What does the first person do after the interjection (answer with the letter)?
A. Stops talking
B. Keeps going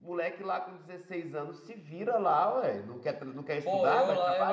A